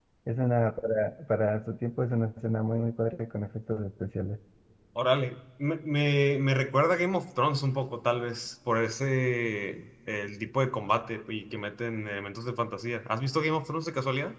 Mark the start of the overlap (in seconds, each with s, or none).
none